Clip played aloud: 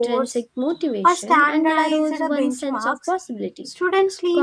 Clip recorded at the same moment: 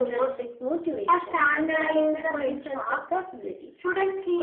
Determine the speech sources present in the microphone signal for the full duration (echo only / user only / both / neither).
echo only